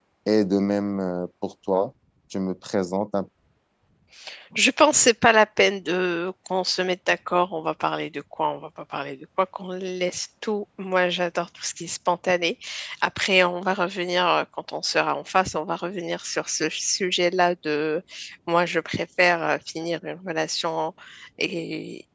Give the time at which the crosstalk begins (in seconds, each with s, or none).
none